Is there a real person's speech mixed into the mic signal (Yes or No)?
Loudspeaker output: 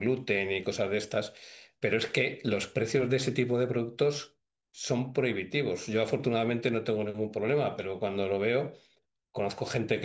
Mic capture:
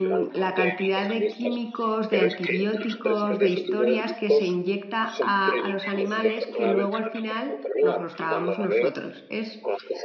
Yes